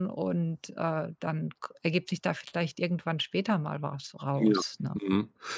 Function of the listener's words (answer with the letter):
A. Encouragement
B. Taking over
B